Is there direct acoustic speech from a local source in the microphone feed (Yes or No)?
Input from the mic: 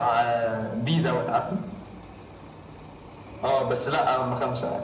No